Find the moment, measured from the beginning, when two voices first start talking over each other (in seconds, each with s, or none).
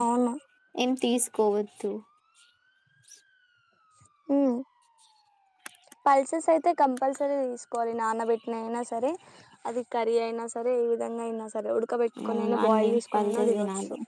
12.2 s